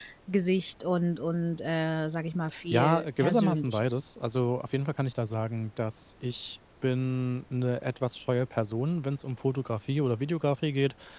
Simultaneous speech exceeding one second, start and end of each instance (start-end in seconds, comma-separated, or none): 2.7-4.0